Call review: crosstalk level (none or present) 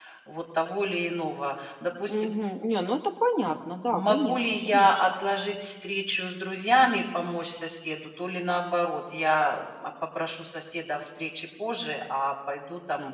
present